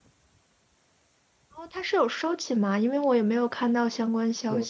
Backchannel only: No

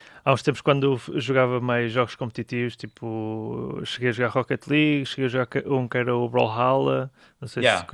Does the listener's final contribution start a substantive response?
Yes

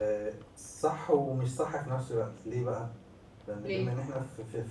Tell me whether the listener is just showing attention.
Yes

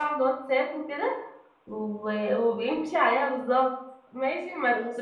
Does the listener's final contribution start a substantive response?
Yes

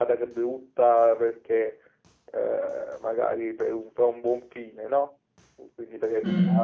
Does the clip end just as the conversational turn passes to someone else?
No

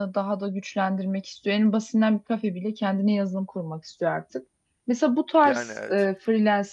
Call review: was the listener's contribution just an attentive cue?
Yes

